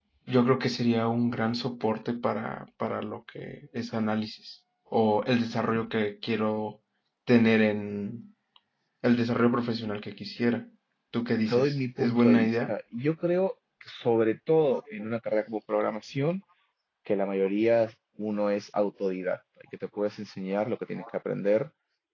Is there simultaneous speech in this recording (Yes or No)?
Yes